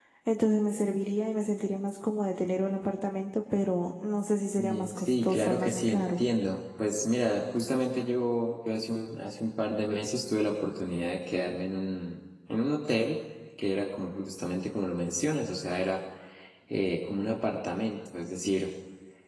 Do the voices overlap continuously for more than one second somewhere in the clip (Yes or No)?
Yes